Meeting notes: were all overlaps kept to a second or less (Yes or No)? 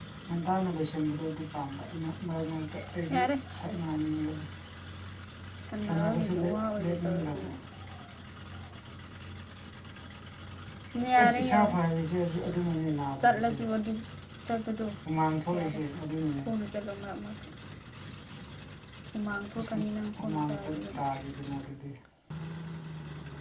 No